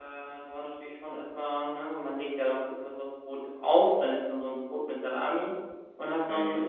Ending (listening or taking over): listening